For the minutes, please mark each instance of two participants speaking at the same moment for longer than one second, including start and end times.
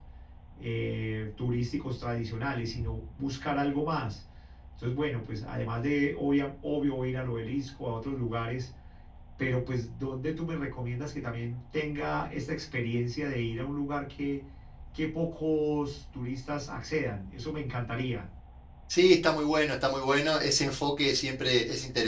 none

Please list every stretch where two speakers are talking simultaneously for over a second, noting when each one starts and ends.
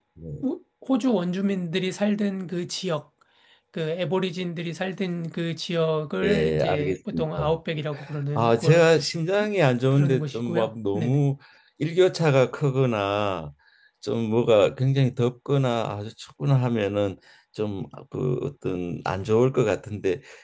6.2-7.5, 9.9-11.2

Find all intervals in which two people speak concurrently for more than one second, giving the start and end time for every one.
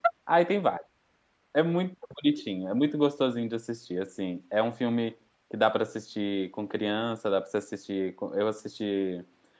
none

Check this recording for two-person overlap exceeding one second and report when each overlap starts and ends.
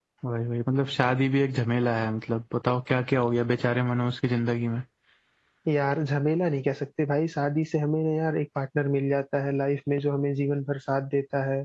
none

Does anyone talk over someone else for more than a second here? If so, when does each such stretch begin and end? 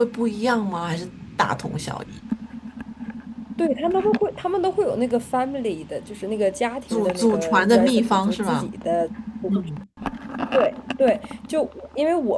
6.9-8.7

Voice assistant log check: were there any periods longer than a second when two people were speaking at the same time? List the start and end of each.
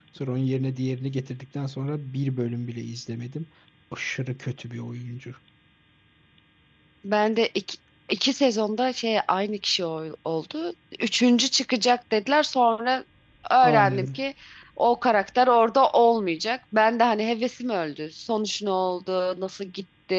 none

